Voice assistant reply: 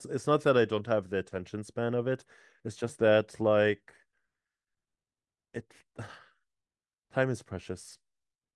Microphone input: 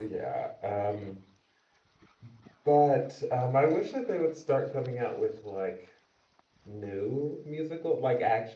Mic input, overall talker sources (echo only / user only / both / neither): user only